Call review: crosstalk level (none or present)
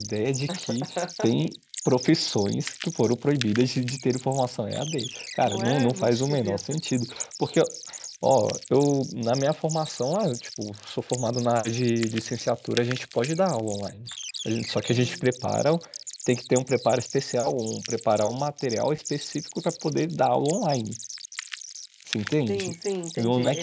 present